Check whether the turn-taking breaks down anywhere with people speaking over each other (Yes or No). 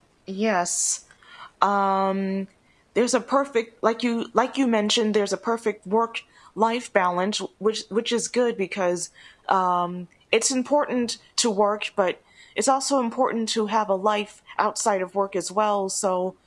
No